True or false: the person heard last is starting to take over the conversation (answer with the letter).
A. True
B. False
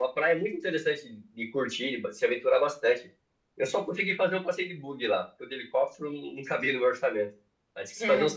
B